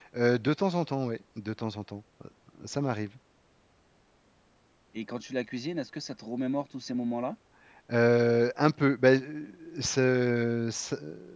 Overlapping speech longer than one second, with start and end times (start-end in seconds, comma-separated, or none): none